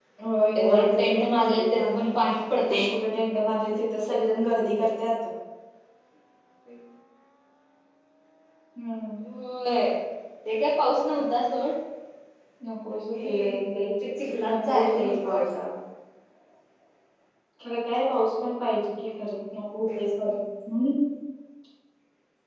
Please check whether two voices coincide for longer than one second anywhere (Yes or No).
Yes